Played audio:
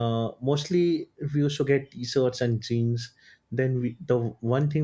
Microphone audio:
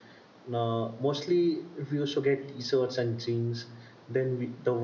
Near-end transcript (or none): none